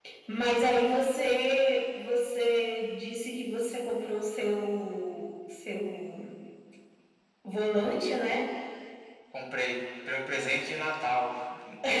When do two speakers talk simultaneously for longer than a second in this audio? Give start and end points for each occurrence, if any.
none

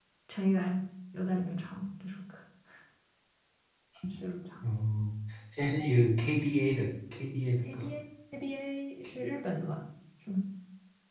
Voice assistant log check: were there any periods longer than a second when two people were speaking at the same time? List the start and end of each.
none

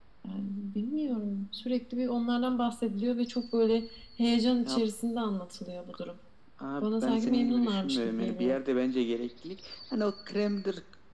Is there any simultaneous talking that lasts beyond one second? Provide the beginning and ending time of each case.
6.8-8.6

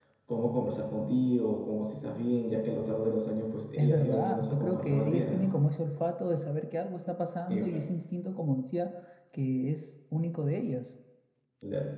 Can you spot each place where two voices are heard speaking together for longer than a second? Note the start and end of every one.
3.8-5.5

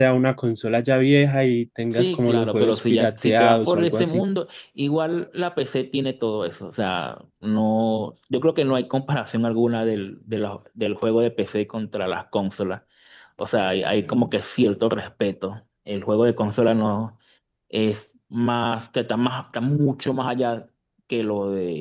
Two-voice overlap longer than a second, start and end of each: 1.9-4.2

